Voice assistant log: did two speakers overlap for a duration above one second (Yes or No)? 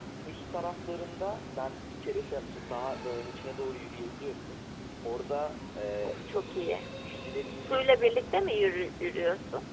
No